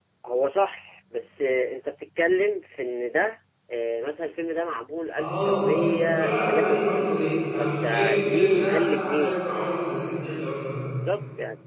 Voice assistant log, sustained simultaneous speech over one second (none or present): present